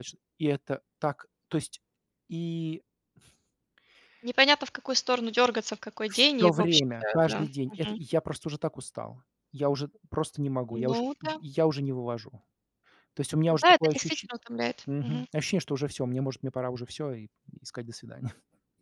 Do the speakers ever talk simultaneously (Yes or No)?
Yes